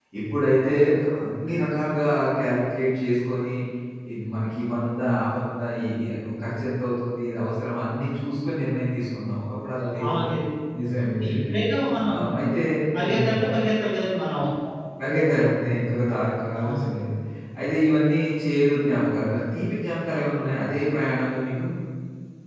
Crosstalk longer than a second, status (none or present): none